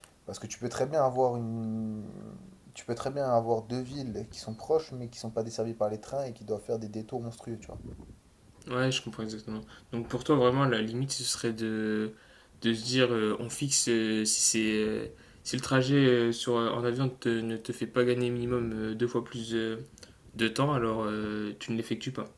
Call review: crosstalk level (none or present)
none